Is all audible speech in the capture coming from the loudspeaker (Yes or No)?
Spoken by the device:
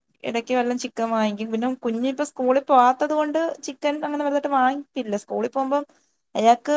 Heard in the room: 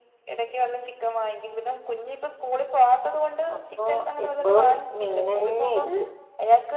No